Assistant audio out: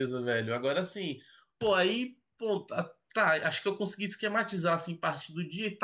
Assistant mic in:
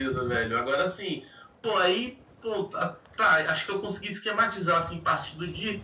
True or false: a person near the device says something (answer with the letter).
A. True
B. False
B